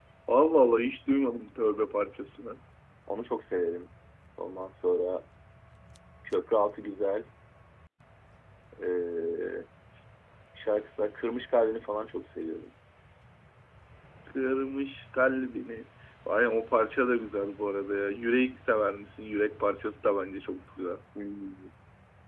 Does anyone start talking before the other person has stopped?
No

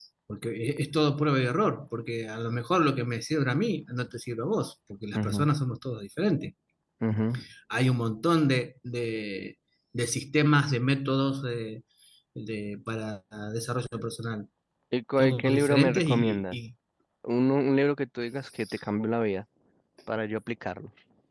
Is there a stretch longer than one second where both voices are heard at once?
Yes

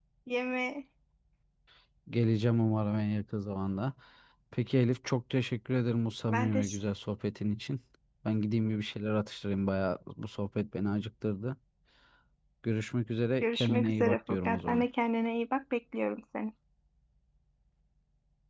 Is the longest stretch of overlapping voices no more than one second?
No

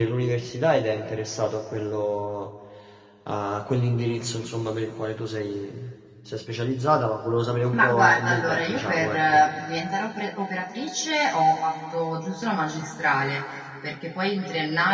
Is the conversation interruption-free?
No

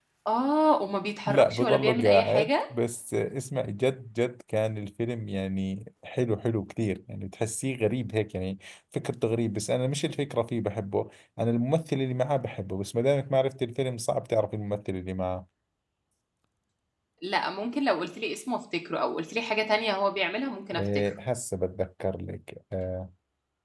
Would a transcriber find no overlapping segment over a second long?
No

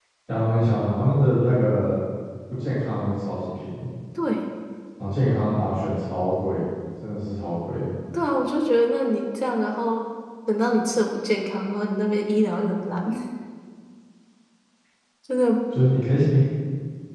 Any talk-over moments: No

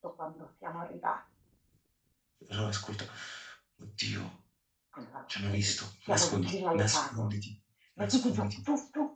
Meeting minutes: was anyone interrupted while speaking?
Yes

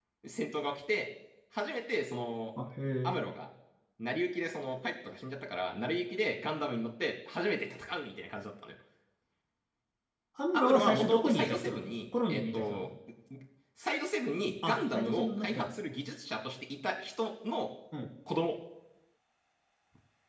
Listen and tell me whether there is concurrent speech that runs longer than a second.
Yes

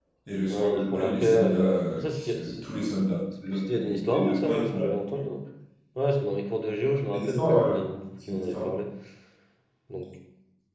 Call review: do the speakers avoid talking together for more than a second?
No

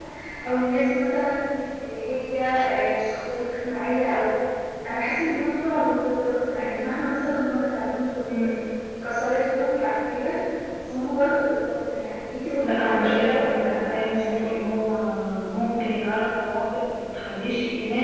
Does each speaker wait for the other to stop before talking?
No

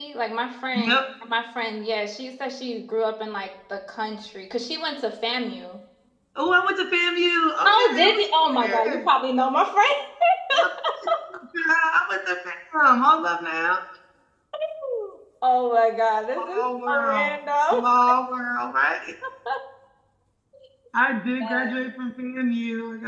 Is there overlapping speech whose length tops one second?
Yes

